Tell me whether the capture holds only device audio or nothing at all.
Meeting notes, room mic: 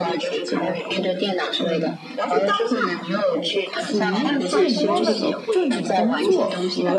No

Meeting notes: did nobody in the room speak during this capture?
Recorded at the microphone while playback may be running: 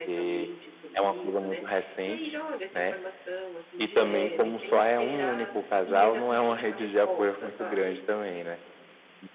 No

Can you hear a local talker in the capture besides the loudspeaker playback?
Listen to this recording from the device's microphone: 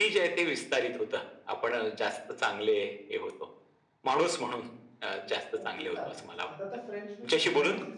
Yes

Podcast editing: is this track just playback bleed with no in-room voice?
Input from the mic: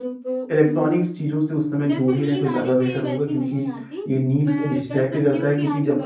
No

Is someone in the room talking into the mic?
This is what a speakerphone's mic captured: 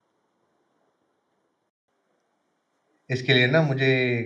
Yes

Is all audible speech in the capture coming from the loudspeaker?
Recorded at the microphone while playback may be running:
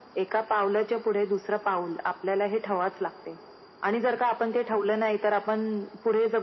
Yes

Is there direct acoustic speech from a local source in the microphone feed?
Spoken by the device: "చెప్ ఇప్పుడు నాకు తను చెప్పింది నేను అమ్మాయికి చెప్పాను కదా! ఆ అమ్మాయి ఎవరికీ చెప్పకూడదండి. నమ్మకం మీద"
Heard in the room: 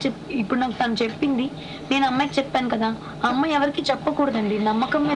No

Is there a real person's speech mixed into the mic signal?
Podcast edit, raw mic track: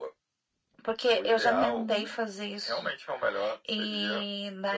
Yes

